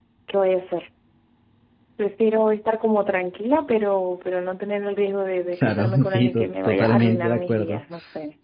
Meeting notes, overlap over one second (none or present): present